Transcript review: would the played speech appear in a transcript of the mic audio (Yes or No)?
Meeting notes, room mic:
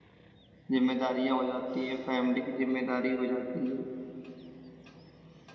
No